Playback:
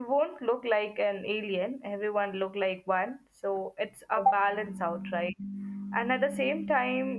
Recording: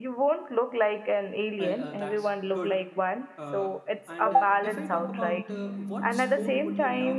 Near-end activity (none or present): present